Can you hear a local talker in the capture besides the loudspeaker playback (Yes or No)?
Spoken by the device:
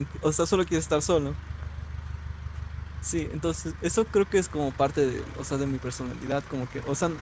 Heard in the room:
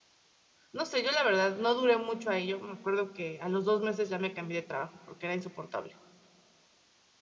Yes